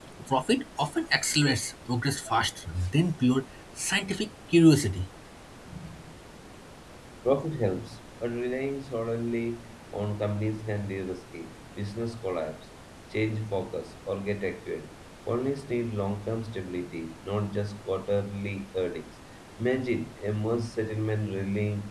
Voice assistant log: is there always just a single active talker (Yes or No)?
Yes